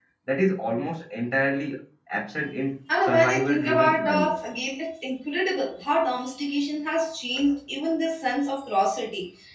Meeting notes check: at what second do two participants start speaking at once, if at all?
2.9 s

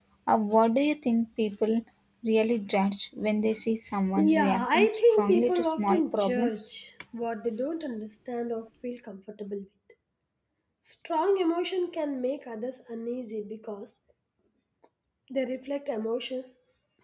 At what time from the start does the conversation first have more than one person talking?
4.2 s

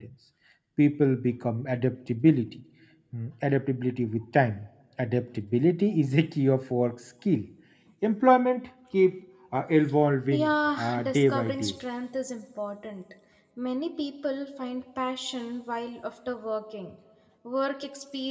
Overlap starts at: 10.3 s

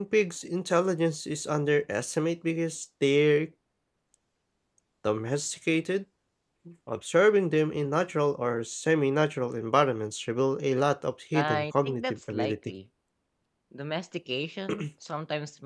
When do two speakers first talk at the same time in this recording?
11.3 s

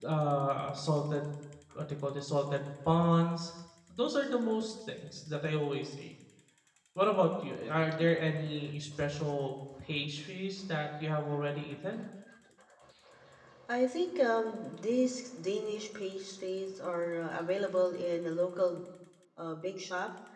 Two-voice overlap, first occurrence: none

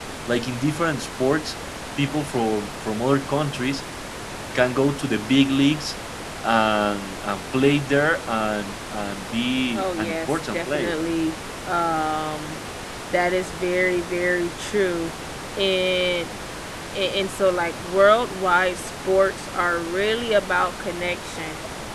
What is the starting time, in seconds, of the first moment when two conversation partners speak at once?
9.8 s

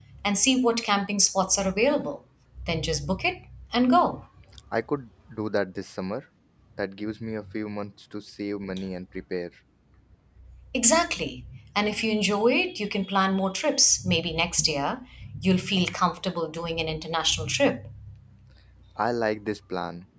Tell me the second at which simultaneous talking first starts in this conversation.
none

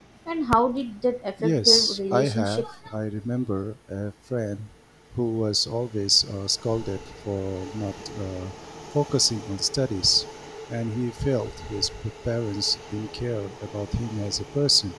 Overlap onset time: 1.4 s

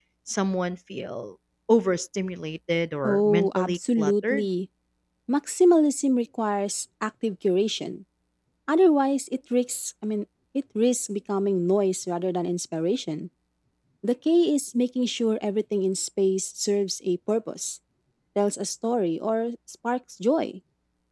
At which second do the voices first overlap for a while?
3.0 s

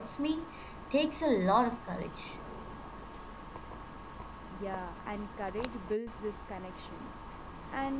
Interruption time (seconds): none

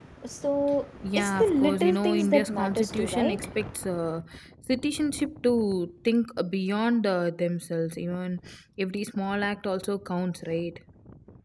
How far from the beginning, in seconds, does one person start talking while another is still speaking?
1.2 s

